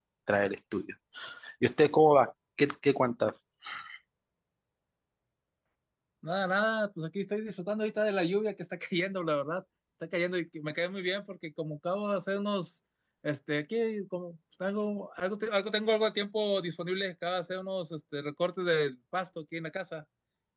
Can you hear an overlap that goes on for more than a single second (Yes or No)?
No